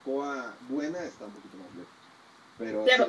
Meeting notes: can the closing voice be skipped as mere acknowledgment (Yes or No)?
No